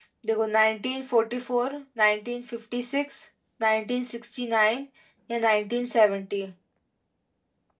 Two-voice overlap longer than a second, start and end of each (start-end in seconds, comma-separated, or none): none